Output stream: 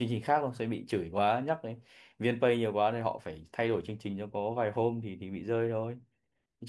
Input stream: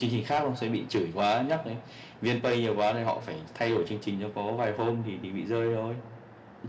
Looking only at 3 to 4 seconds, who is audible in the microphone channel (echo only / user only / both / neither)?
echo only